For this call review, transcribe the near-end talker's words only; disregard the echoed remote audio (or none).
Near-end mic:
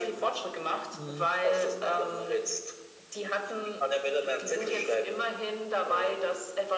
Mhm.